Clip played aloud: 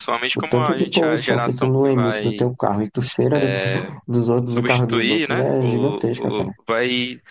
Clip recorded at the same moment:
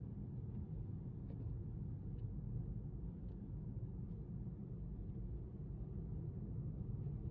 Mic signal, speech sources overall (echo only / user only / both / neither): neither